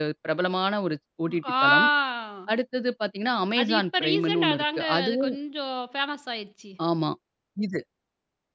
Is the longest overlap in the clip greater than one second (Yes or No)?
Yes